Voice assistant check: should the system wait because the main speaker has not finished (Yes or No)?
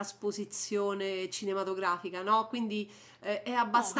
Yes